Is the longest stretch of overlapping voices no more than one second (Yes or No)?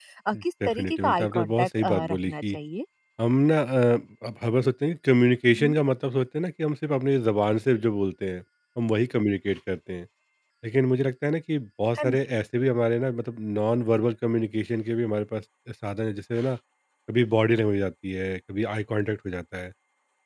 No